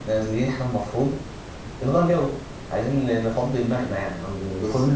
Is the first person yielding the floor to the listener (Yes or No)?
No